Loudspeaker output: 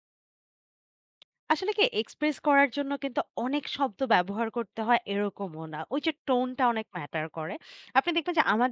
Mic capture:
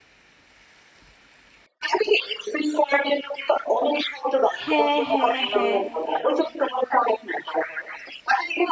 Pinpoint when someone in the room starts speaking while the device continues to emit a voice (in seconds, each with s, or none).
4.6 s